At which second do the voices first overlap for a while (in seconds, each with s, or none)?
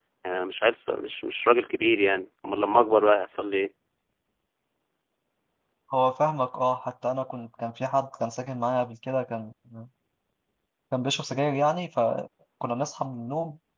none